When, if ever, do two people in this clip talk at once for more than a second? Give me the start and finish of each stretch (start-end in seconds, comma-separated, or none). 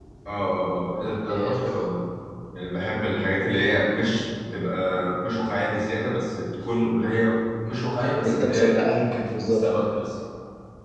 8.2-9.6